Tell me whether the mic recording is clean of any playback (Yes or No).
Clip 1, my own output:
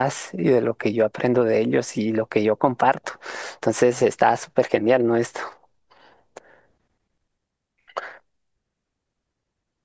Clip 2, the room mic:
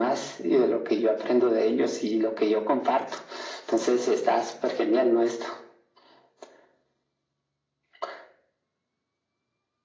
No